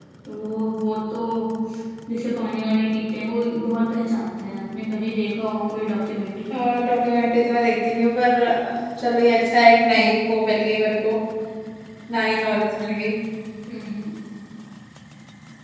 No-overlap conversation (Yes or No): Yes